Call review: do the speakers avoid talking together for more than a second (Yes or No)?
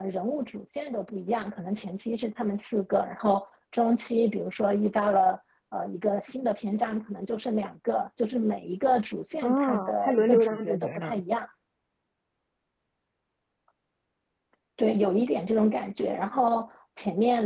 No